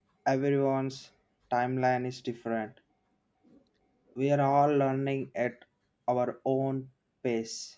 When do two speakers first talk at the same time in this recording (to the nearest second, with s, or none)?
none